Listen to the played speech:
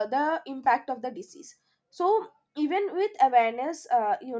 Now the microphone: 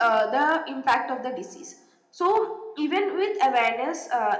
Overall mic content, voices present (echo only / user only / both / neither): echo only